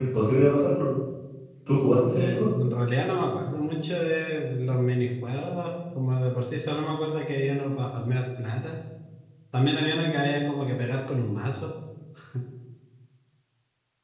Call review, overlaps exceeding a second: none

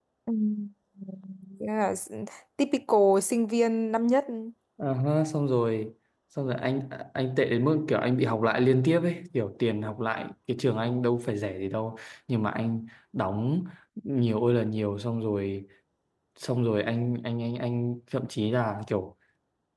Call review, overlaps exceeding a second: none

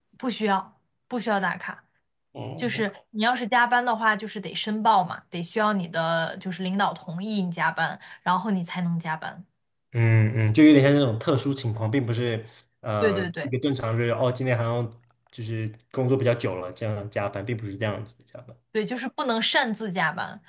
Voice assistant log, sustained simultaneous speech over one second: none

